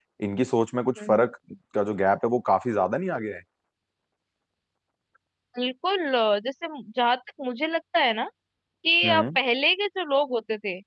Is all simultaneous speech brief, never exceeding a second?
Yes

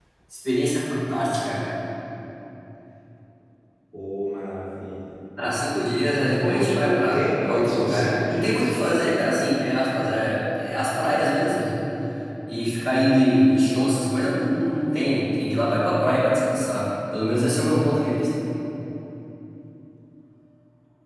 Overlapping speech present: Yes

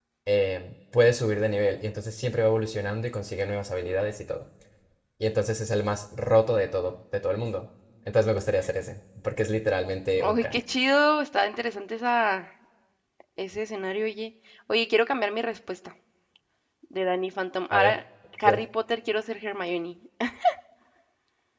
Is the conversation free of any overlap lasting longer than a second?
Yes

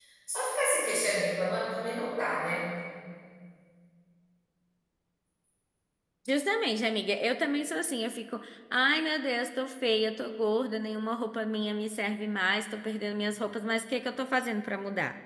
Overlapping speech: No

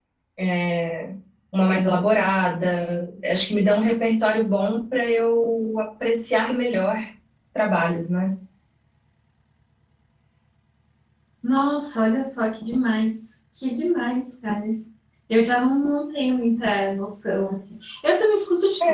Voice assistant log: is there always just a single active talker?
Yes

